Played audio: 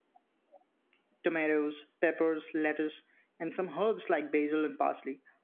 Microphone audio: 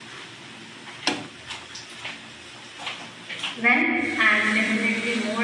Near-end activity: present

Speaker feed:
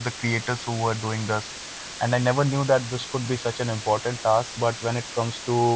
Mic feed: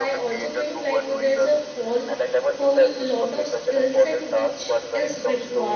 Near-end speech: present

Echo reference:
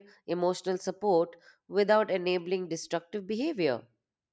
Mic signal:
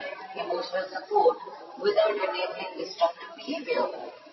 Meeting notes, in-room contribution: none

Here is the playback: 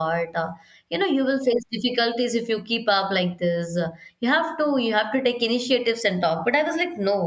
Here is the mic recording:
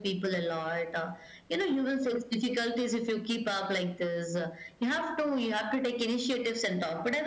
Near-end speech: none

